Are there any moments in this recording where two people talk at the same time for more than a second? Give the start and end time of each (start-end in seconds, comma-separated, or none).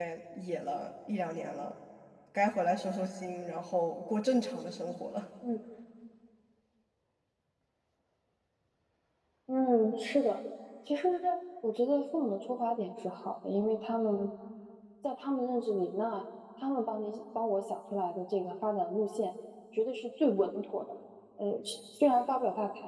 none